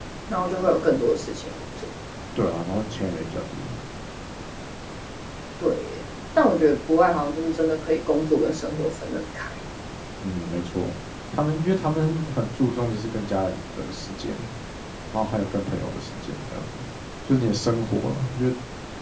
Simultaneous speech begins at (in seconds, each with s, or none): none